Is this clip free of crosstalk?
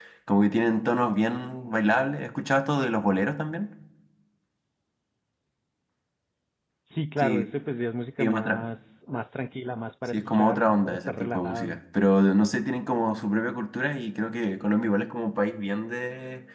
No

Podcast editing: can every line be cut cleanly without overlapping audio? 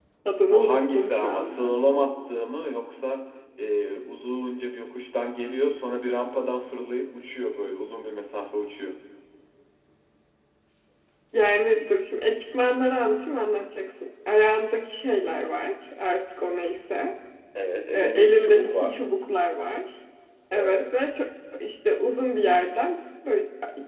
No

